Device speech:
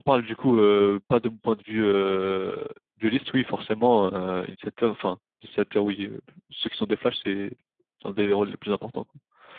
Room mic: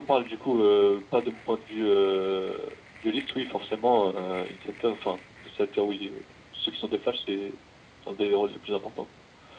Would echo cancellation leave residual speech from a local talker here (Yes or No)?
No